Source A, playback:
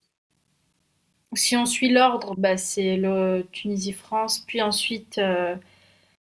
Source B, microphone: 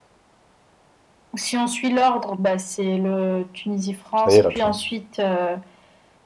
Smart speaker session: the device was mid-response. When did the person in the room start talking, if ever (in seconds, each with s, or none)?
4.1 s